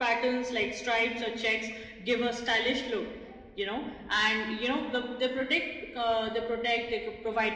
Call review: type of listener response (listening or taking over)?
listening